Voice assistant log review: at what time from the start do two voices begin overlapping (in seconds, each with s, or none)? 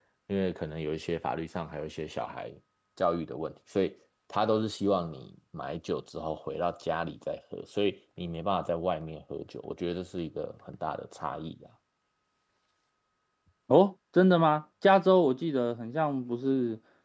none